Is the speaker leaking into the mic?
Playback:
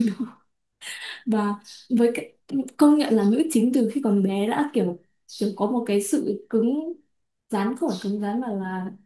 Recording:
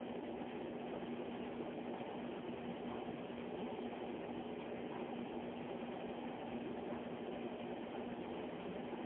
No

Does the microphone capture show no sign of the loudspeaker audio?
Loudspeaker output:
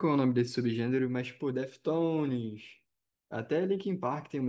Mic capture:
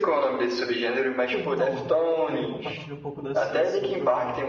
No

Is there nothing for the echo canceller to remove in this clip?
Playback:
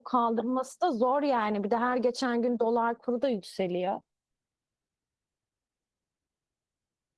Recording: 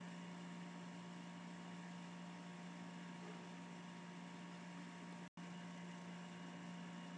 Yes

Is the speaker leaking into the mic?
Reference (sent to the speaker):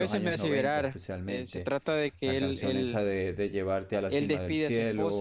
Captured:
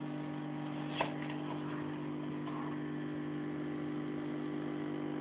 No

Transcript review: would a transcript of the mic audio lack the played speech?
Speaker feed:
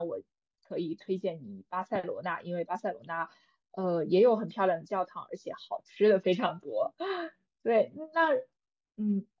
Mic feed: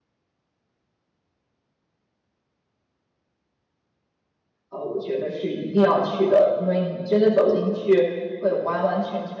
Yes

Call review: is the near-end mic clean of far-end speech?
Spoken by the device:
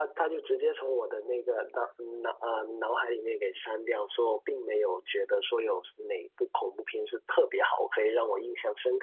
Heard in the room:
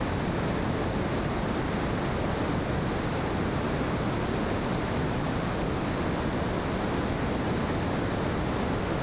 Yes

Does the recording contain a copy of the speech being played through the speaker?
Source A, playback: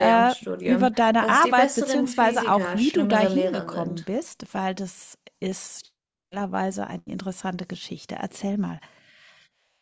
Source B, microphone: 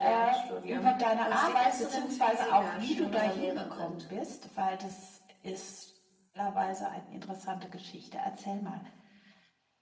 Yes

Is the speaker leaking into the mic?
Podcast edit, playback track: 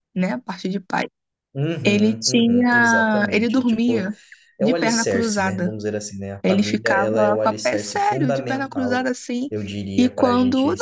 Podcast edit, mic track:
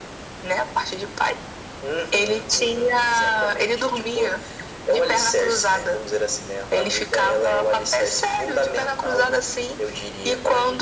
Yes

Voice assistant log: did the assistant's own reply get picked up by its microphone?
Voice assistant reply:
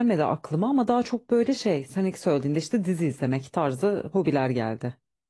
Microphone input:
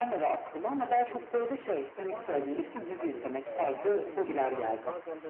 Yes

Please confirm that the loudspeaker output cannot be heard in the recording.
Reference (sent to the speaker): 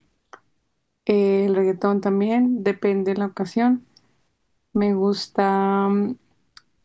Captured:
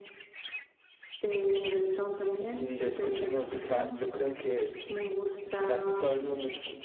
No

